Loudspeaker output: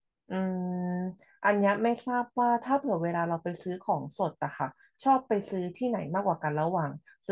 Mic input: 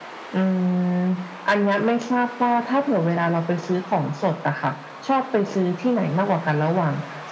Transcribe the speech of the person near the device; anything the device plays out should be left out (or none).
none